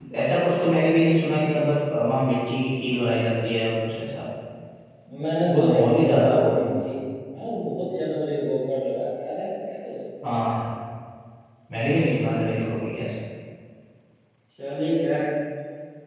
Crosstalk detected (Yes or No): Yes